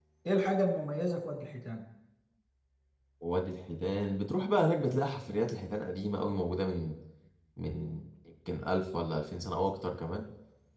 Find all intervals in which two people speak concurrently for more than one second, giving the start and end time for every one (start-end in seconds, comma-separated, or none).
none